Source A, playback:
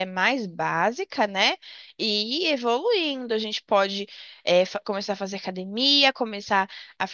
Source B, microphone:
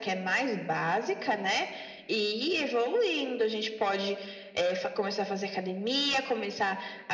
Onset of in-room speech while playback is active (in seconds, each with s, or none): none